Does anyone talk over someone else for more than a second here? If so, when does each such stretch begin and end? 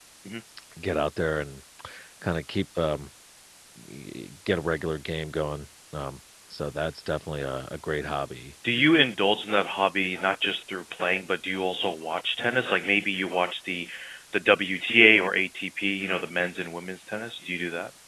none

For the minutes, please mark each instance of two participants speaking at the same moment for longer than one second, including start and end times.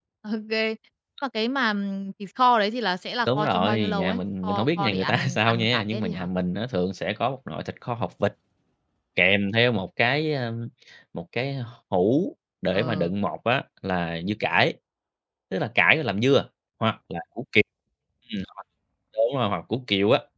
3.3-6.3

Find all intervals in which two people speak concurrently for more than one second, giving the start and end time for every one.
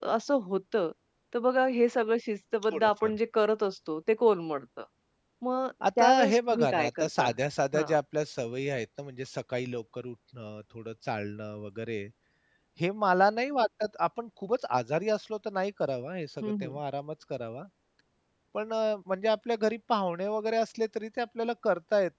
6.0-7.3

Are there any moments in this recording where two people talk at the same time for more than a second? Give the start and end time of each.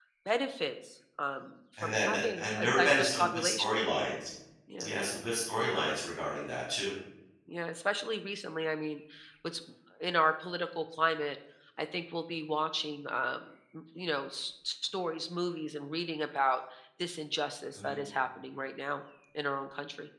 1.8-3.6

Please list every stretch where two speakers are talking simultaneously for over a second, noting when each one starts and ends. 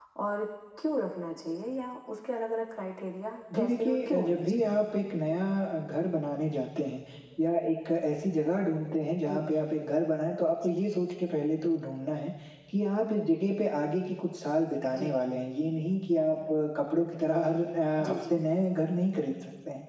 3.5-4.8

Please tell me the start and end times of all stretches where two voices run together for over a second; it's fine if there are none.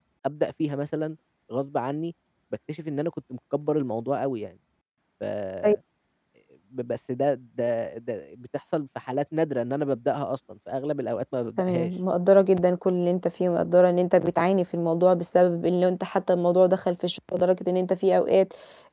none

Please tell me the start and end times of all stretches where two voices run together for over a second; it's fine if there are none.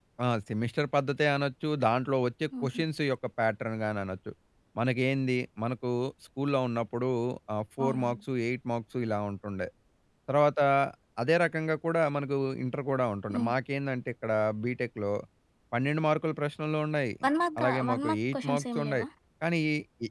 17.6-19.1

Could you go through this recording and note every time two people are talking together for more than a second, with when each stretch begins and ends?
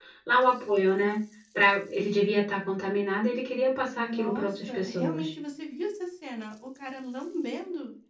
4.0-5.3

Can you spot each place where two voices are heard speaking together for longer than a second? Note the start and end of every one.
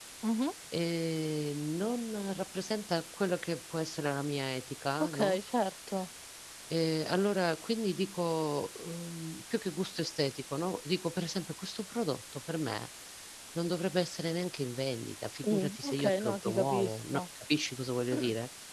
15.5-17.2

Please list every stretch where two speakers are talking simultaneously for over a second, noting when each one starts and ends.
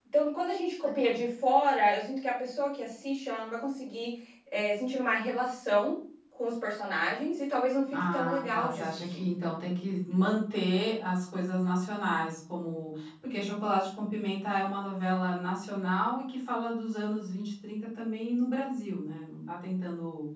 7.9-9.2

